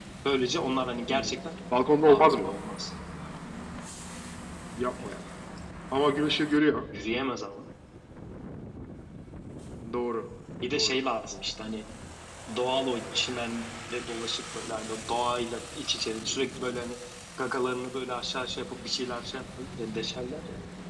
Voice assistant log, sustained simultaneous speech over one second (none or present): none